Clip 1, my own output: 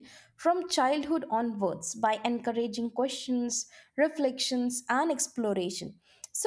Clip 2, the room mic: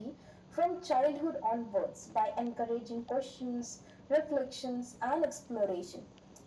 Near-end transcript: none

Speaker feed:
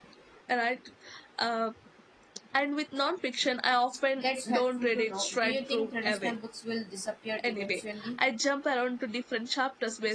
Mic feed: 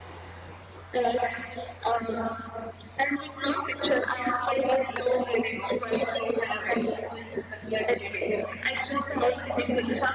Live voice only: none

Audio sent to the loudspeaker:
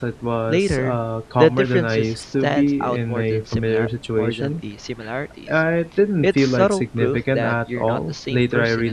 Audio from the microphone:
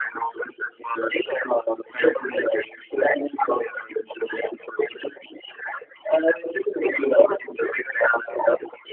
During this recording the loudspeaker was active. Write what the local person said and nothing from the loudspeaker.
none

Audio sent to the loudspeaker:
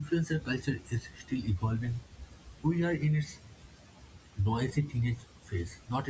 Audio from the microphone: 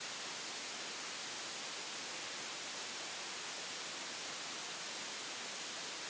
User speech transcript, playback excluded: none

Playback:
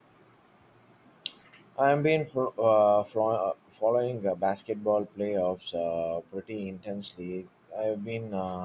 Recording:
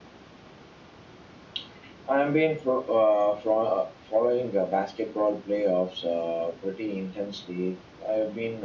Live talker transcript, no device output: none

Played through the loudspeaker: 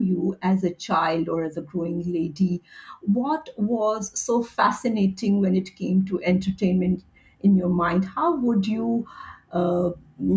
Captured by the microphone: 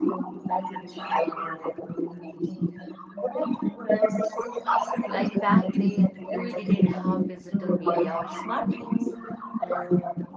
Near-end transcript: Like back then, we didn't have digital media or smartphones.

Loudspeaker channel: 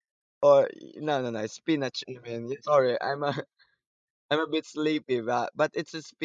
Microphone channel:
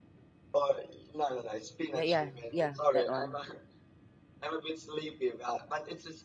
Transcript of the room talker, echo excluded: Yeah, yeah, yeah, that one.

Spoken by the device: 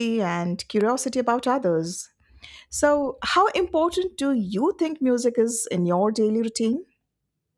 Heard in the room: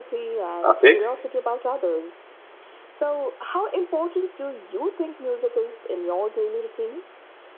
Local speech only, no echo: Okay.

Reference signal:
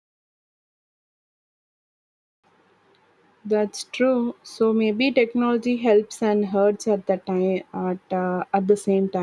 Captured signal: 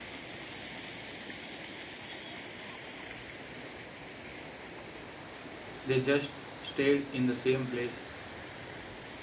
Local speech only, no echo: they just stayed in the same place

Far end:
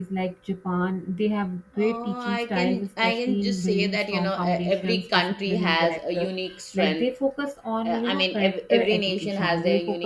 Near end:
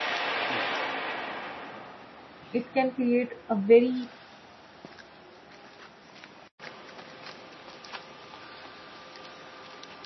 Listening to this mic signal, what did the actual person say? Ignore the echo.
it can create a very

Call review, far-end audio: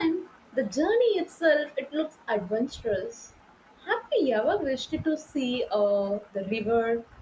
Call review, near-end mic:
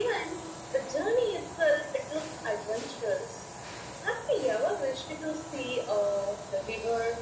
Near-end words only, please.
none

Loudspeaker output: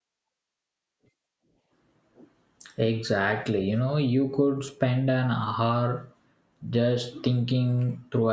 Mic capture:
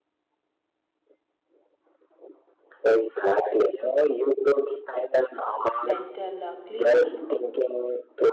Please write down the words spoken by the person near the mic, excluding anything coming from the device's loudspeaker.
mental uh, cleanup.

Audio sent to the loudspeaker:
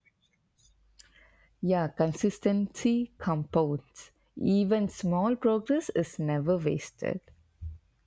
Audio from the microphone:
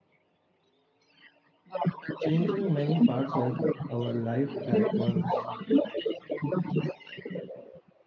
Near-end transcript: changing many parts of our life at once.

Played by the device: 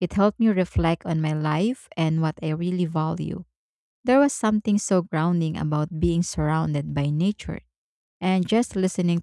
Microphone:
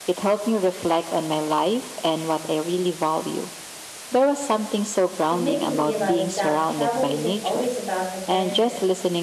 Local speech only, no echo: It made me realize that travel isn't always about adventure.

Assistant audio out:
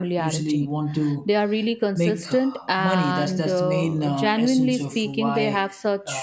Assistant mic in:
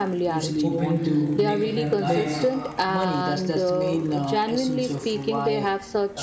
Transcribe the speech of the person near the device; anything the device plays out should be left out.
hoping to make a better life,

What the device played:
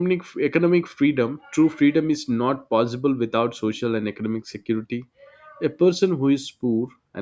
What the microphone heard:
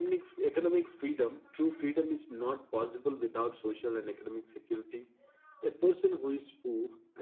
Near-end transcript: none

